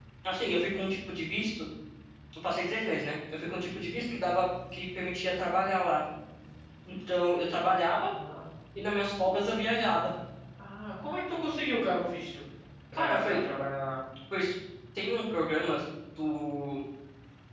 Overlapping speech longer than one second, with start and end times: none

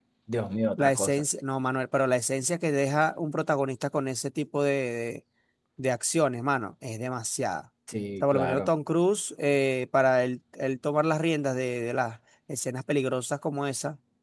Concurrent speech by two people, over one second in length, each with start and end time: none

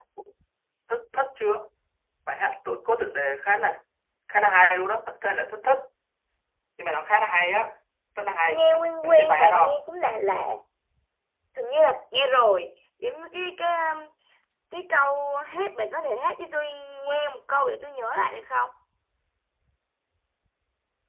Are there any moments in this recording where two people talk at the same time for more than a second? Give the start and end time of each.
8.5-9.8

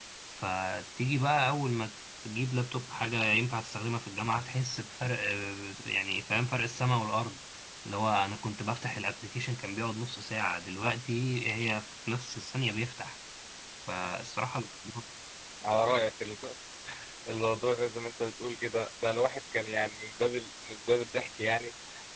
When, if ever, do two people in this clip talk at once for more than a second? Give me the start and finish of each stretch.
none

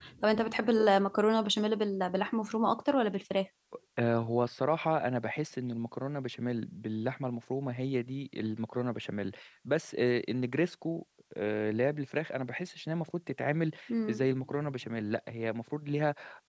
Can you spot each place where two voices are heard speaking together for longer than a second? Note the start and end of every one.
none

